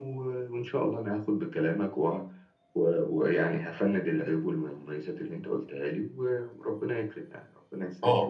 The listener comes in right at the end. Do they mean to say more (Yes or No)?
Yes